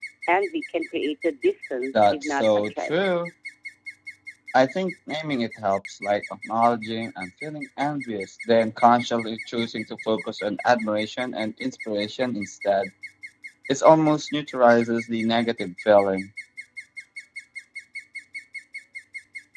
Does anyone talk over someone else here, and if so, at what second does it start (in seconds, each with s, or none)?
1.9 s